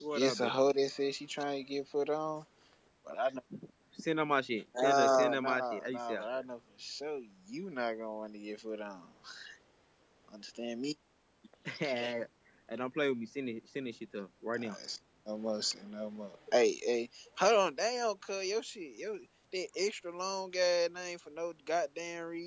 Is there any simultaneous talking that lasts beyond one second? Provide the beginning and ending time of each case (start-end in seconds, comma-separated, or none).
4.8-6.2